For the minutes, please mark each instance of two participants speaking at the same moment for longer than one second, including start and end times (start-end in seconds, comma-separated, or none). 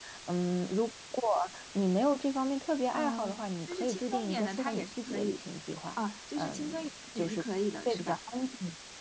2.9-5.4